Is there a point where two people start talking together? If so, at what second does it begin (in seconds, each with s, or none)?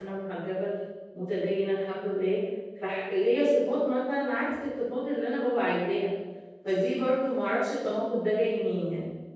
none